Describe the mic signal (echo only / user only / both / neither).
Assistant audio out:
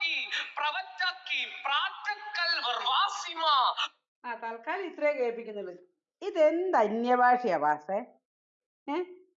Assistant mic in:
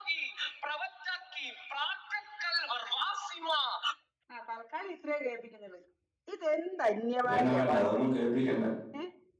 both